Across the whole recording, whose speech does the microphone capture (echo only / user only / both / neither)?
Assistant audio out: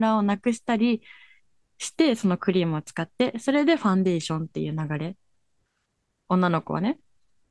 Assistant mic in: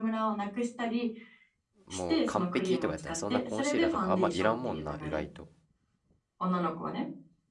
both